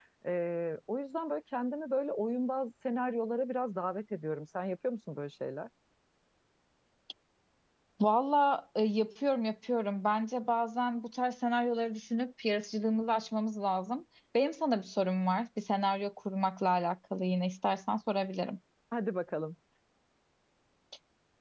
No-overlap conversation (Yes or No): Yes